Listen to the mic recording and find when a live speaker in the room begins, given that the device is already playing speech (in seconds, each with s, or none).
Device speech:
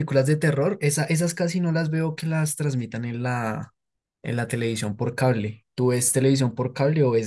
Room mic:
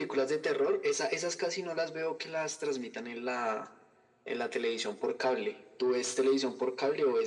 none